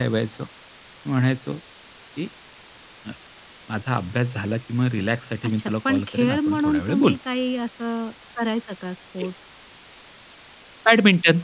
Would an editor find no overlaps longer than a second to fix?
No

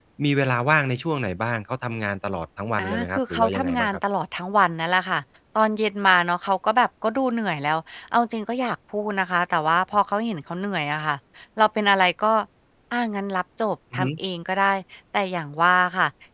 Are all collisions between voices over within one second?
No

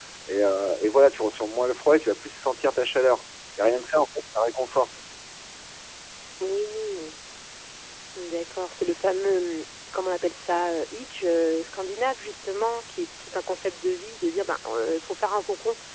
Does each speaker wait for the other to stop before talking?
Yes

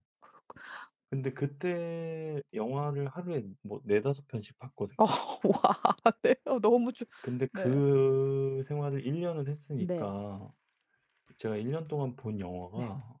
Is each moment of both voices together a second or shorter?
Yes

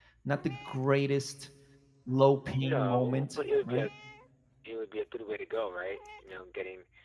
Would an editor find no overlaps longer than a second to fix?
No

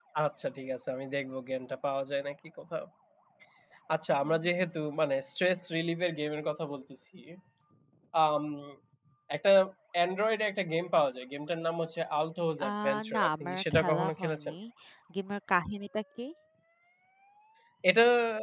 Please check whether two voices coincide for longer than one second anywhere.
Yes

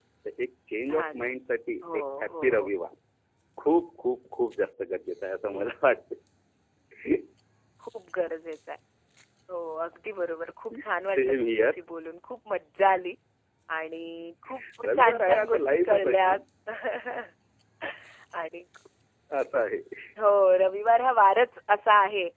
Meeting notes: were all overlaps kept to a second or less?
No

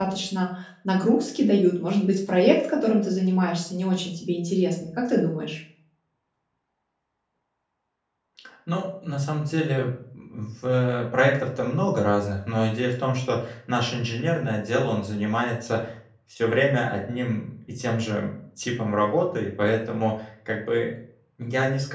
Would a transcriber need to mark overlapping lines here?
No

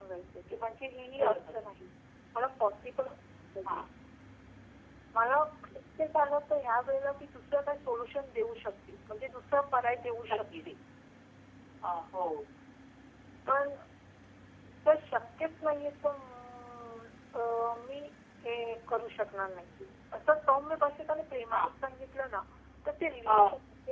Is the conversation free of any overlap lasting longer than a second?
Yes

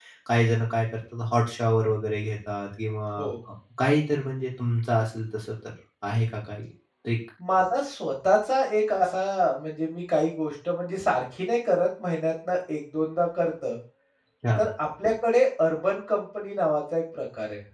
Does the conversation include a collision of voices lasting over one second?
No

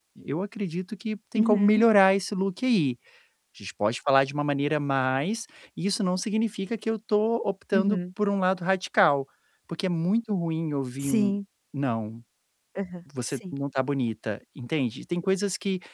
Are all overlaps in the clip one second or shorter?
Yes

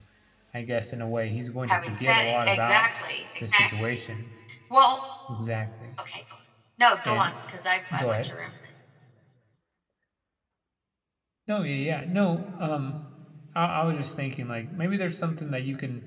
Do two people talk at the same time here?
Yes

